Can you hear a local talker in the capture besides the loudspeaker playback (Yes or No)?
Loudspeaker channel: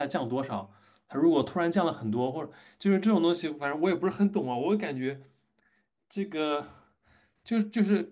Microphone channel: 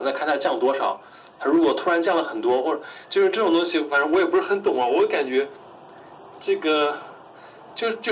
No